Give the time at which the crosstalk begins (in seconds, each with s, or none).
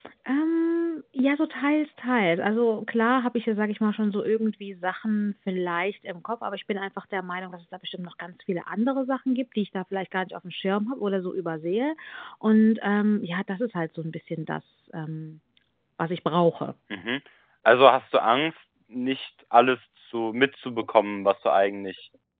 none